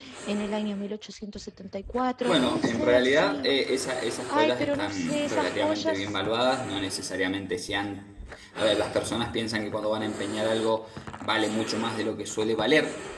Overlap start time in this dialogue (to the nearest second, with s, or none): 2 s